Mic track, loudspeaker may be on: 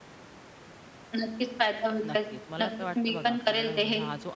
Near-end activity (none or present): present